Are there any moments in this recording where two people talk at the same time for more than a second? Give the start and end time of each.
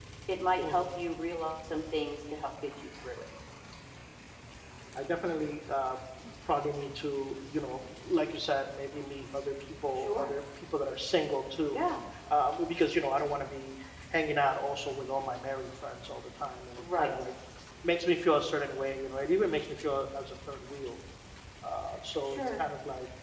none

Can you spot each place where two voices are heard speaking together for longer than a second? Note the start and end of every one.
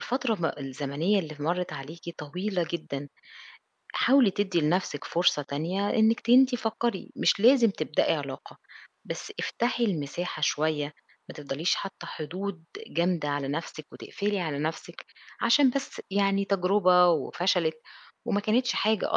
none

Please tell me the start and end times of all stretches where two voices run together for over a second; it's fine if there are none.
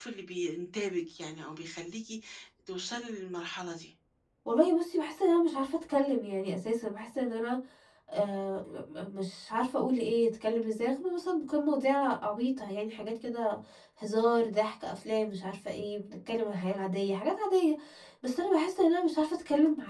none

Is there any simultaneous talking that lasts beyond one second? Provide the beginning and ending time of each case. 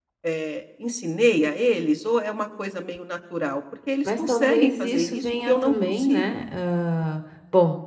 4.0-6.4

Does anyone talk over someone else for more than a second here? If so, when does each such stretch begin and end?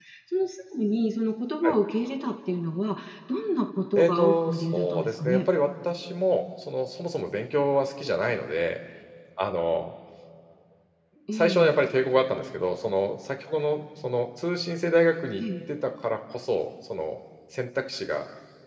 4.0-5.5

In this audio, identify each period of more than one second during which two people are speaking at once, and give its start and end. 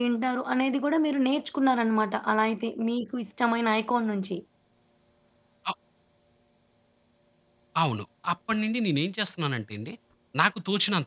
none

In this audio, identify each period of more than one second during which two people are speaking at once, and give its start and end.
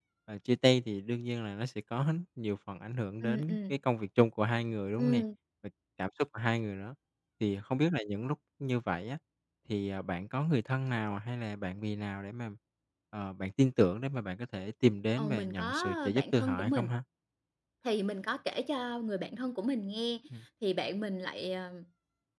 15.2-16.9

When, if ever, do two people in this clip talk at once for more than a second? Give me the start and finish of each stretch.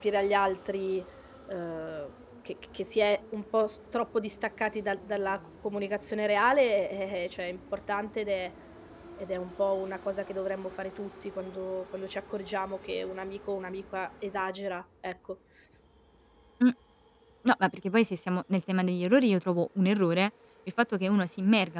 none

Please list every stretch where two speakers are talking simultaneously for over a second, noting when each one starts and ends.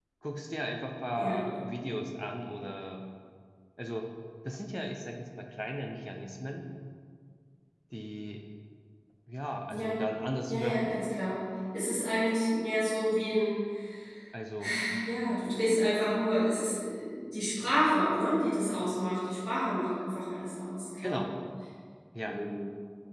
none

